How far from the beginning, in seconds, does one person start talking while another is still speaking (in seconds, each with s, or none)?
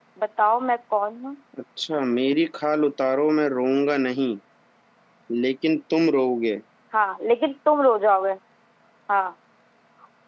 none